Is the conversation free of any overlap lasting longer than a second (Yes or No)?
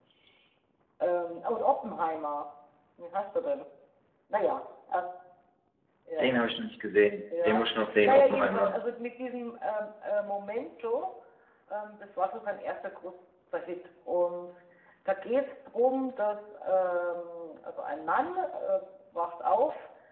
No